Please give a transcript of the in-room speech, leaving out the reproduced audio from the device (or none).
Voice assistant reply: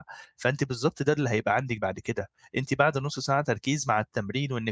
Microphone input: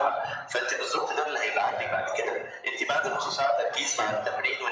none